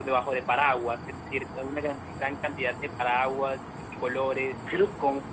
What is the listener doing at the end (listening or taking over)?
listening